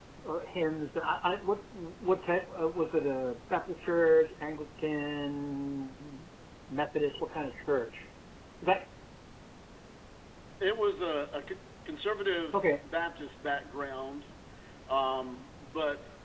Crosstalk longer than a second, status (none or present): none